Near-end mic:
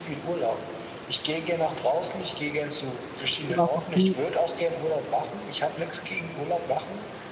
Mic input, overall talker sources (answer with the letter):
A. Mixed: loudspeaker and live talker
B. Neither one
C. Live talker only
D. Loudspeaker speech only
A